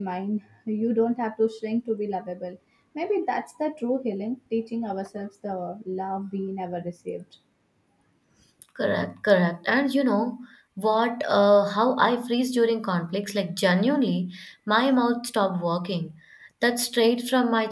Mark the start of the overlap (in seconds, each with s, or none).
none